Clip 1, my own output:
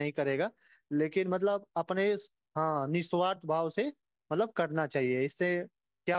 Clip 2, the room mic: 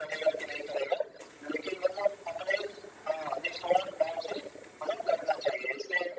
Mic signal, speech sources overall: echo only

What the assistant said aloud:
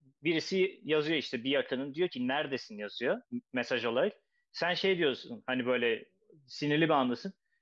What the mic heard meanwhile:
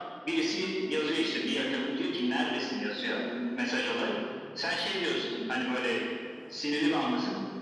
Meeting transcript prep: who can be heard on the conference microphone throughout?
echo only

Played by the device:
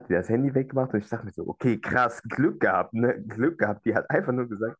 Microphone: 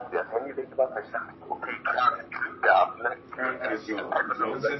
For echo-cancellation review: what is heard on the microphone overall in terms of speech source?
both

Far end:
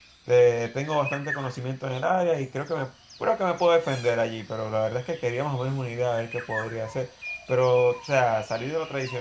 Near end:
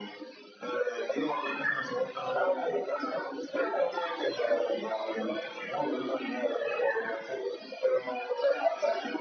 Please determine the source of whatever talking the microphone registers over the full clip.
echo only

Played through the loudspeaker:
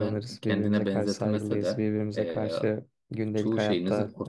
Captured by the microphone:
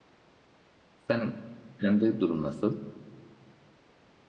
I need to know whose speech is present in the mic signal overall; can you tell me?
user only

